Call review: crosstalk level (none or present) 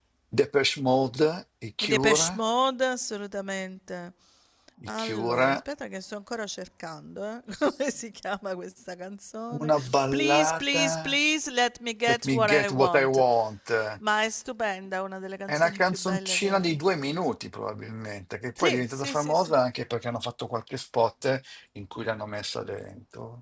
present